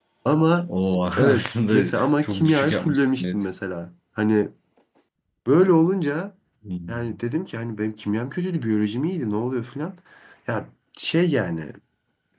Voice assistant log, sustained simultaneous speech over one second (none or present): present